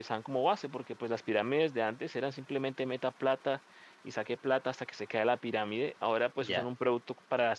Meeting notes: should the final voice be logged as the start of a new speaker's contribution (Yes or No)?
No